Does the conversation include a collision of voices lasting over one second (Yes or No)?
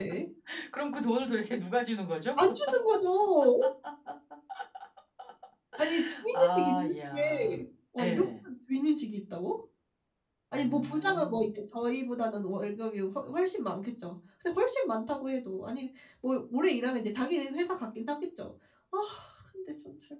Yes